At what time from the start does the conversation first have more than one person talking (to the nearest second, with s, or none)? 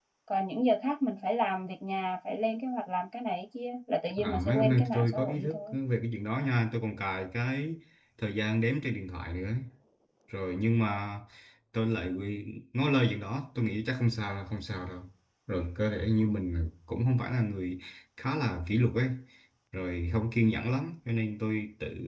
4 s